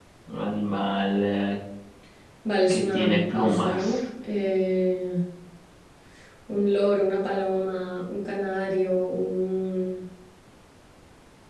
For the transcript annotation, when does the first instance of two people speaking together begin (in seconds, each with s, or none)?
2.7 s